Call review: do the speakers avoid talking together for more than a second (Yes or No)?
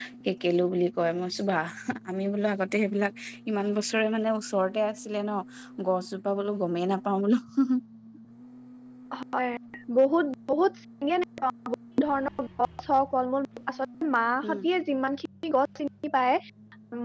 Yes